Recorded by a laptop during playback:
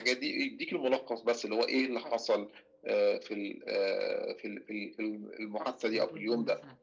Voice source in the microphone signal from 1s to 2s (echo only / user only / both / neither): echo only